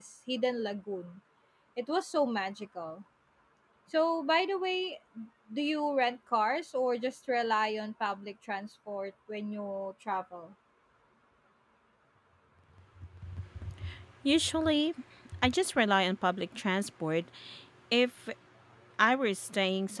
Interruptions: none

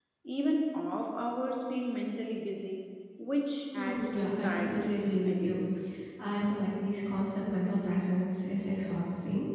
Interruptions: present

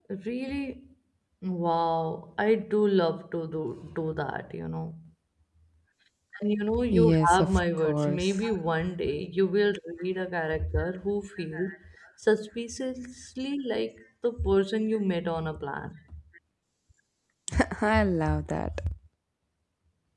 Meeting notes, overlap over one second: present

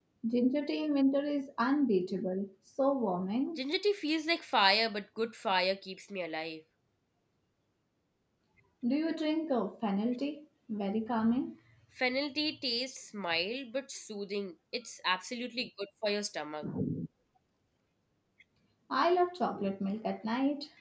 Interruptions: none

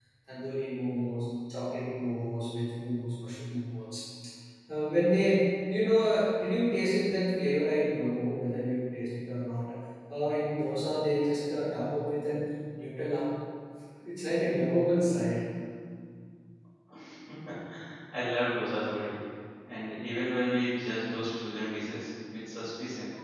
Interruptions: none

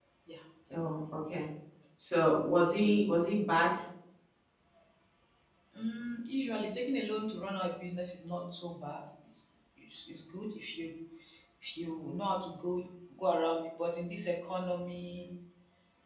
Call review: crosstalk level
none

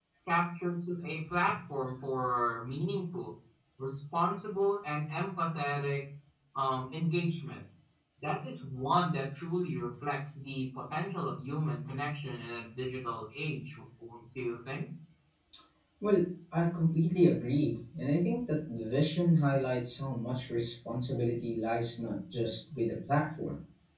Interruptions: none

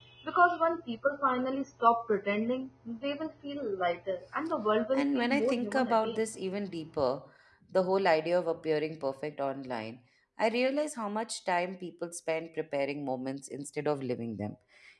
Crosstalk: present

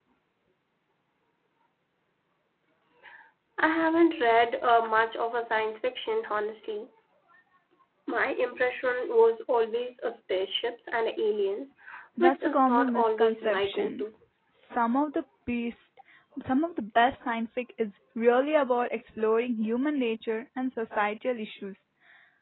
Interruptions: present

